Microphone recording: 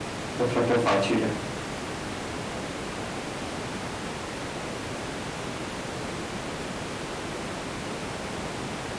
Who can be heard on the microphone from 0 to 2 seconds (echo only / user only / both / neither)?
user only